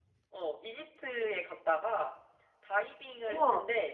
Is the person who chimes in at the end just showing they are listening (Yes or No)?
Yes